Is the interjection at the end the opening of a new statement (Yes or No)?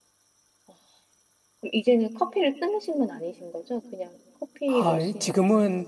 Yes